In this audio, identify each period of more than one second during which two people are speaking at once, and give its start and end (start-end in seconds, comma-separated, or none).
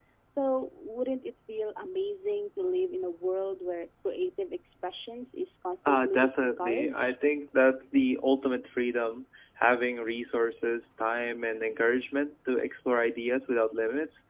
5.9-7.1